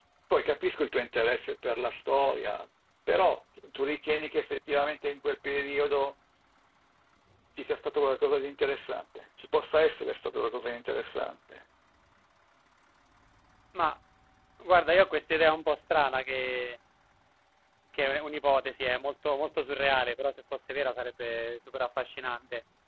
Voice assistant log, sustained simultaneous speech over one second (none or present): none